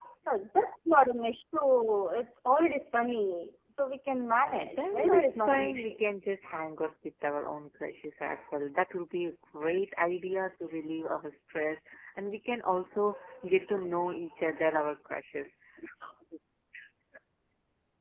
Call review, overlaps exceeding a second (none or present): present